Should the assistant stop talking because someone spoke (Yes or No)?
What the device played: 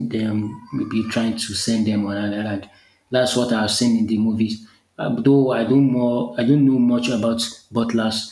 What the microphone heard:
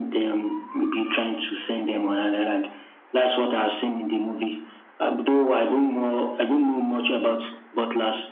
No